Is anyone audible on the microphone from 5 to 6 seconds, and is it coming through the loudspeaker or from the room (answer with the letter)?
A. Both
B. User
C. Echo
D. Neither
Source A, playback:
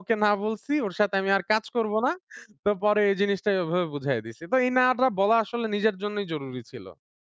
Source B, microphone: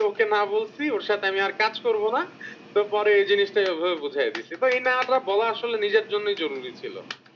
C